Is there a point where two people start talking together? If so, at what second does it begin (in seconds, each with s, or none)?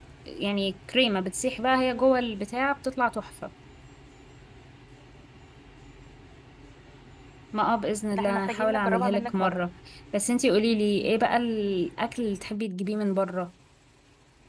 8.1 s